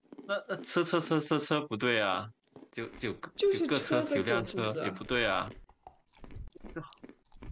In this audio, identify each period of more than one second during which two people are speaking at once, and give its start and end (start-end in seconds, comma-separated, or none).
3.5-5.0